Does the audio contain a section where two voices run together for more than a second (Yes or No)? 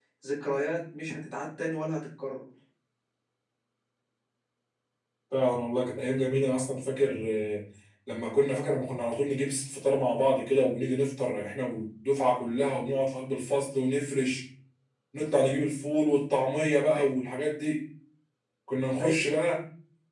No